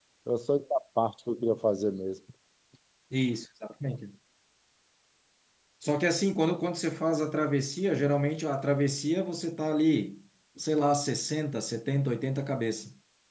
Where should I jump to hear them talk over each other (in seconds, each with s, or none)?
none